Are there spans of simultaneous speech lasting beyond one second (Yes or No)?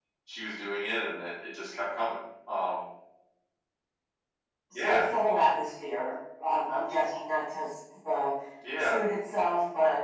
No